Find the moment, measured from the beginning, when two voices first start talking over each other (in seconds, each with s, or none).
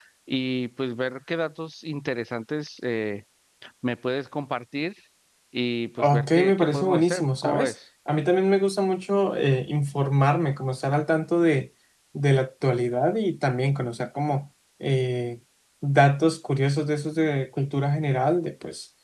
6.0 s